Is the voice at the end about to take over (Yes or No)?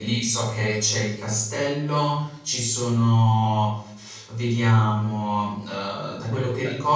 No